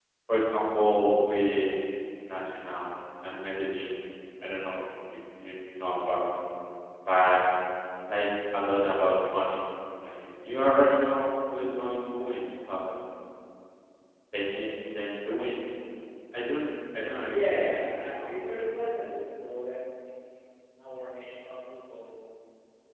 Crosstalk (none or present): present